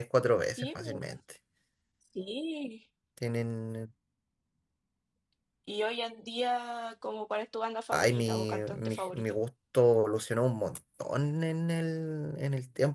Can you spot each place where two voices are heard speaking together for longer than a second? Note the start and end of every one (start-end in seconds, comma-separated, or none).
7.9-9.4